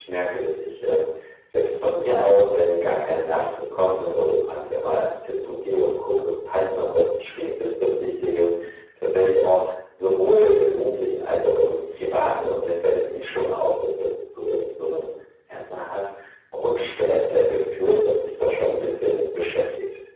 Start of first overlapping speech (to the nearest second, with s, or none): none